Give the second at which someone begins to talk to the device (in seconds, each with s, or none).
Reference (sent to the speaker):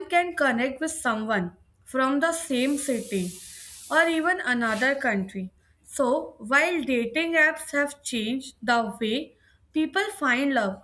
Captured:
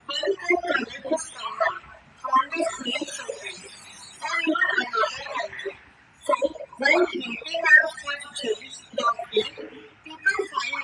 none